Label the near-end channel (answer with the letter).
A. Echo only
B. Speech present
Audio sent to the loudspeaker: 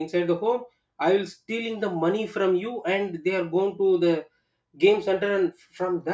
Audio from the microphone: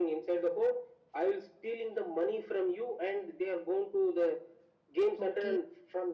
B